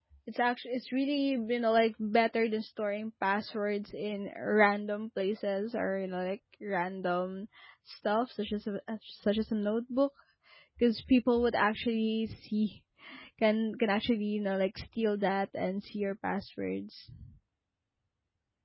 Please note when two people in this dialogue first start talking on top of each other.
none

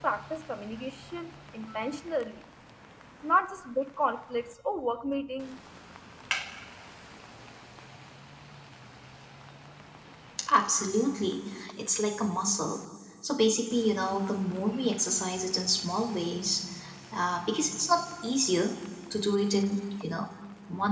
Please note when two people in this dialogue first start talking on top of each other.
none

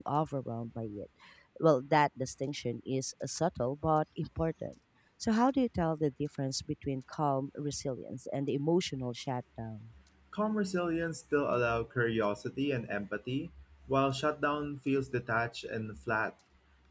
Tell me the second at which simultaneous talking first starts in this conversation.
none

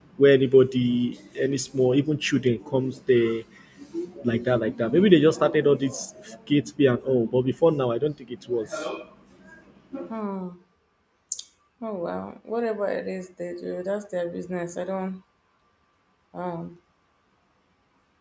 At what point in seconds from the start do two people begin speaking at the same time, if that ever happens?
none

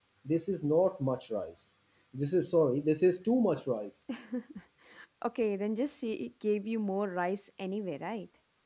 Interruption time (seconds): none

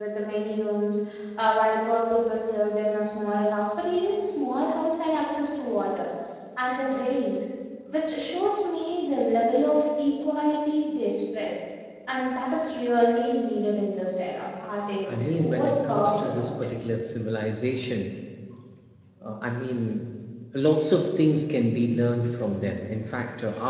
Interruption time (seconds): 15.1 s

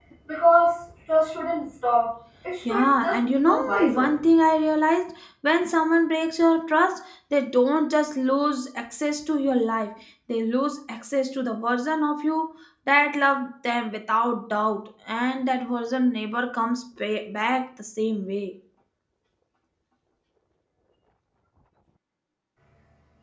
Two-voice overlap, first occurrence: 2.6 s

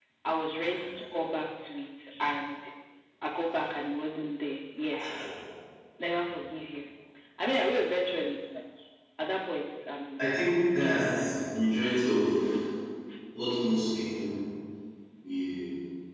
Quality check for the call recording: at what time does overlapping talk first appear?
10.8 s

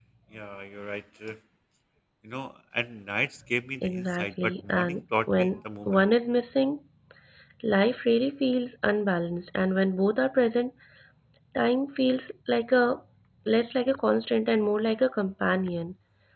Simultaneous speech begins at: 3.8 s

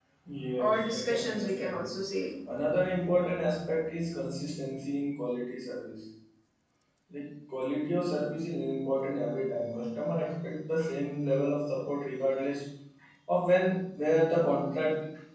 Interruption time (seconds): 0.6 s

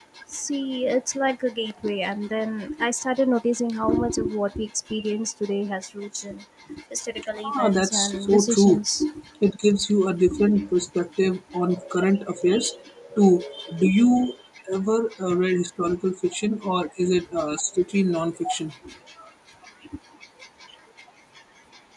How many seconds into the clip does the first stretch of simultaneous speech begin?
7.6 s

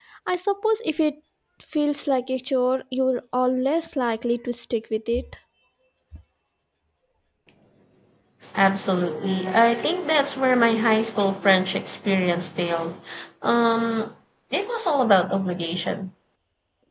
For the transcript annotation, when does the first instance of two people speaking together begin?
none

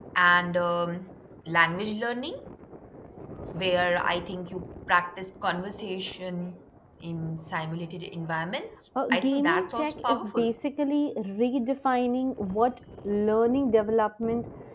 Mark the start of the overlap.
9.0 s

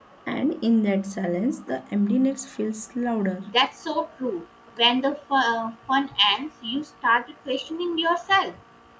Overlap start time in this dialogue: none

